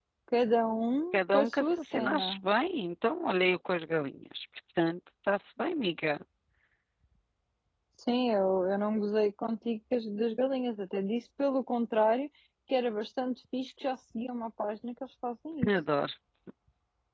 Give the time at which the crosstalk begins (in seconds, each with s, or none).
1.1 s